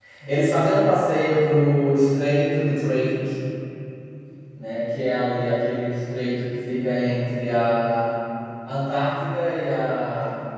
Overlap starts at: none

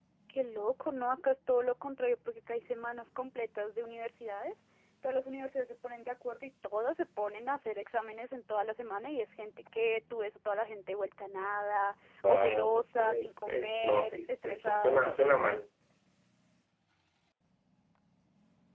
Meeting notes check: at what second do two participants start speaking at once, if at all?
12.2 s

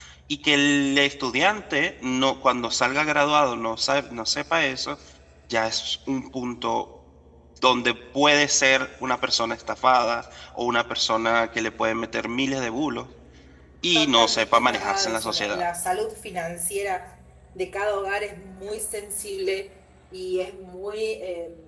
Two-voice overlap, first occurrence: 13.9 s

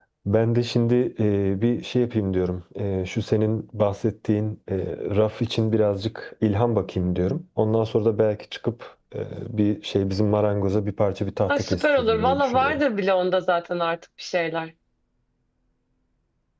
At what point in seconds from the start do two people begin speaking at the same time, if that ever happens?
11.5 s

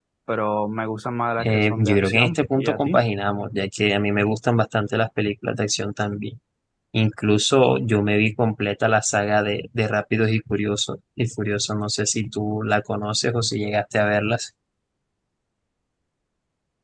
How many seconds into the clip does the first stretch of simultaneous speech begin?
1.4 s

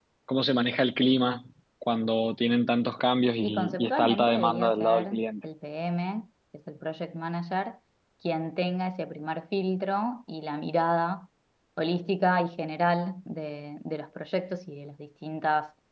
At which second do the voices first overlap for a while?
3.4 s

